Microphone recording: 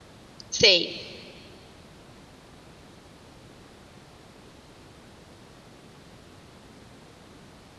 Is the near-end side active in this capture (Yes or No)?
Yes